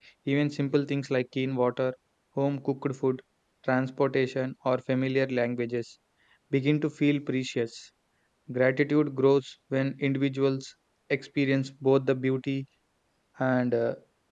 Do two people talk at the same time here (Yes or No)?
No